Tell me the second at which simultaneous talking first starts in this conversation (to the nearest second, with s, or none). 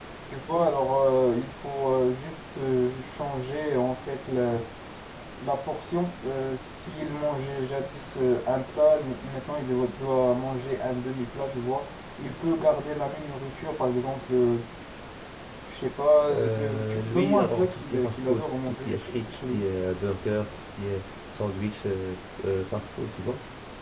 16 s